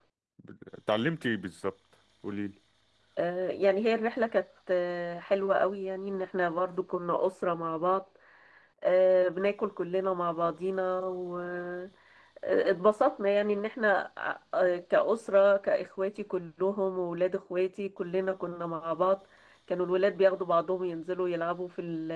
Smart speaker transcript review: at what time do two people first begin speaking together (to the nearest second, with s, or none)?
none